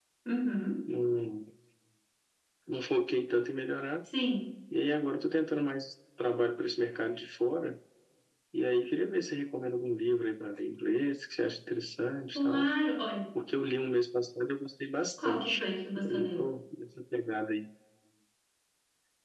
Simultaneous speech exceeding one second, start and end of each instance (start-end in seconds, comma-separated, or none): none